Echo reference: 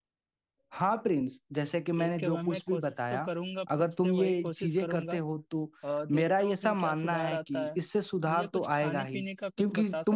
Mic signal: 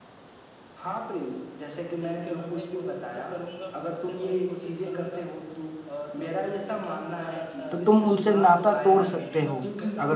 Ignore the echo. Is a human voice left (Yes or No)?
Yes